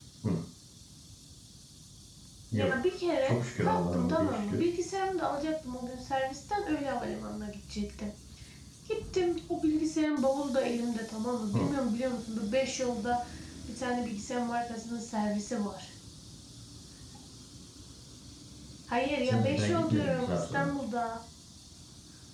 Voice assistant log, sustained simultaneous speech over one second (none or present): present